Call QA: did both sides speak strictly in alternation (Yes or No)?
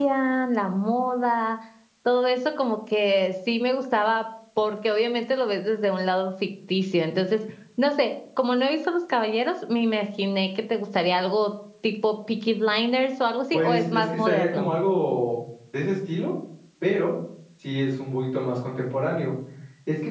No